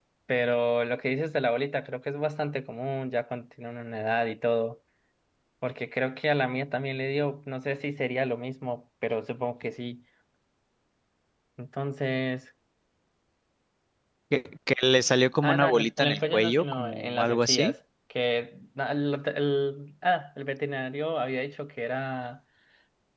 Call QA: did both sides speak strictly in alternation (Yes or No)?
No